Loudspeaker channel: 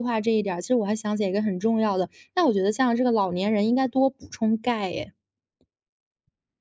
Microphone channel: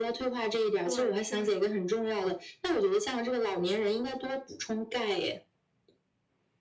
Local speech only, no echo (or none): 对，确实，